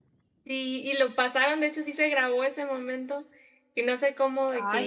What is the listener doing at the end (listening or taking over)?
listening